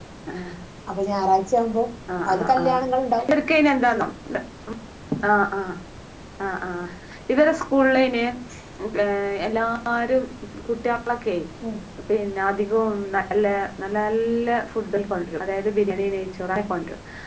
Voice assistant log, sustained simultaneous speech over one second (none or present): none